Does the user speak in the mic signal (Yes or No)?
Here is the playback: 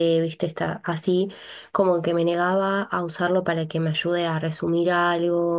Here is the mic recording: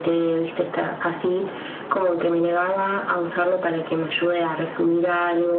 No